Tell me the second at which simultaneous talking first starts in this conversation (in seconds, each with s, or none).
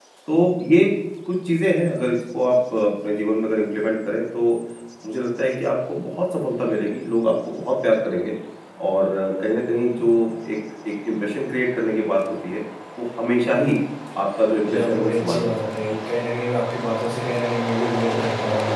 14.7 s